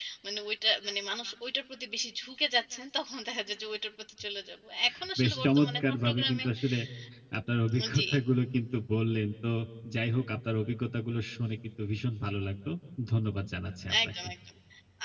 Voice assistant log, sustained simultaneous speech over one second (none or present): present